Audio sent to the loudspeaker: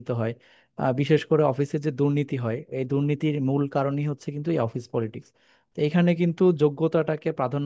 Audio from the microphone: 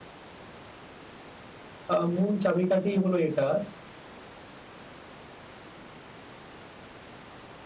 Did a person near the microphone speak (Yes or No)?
Yes